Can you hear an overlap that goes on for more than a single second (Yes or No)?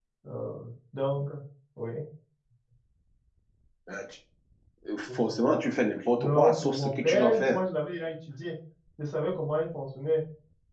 Yes